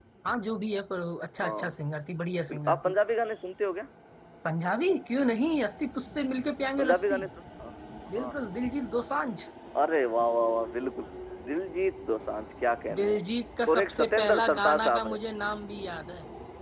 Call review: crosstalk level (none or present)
present